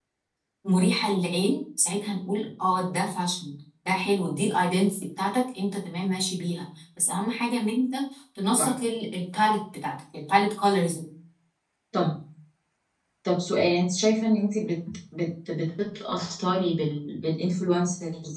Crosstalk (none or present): none